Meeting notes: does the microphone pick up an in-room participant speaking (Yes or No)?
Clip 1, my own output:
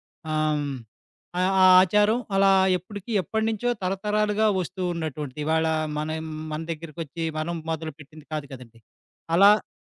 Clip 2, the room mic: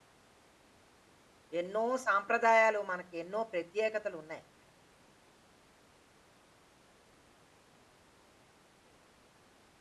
Yes